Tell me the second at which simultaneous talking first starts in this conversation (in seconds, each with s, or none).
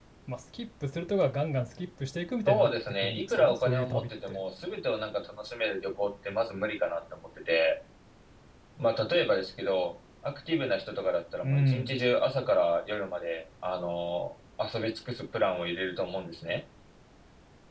2.5 s